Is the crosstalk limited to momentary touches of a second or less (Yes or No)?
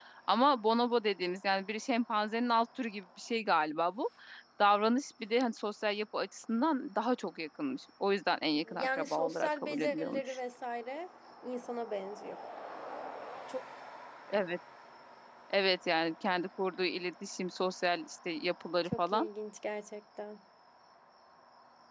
No